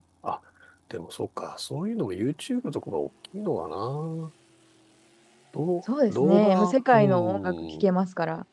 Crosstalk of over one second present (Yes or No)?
Yes